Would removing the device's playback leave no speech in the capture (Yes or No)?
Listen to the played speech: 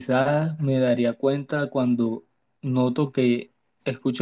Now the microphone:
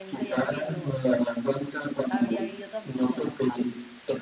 No